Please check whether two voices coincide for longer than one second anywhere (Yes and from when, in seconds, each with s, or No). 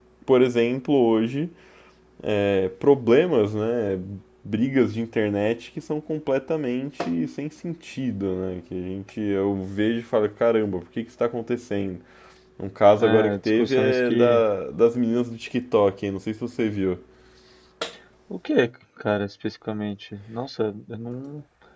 Yes, from 13.0 s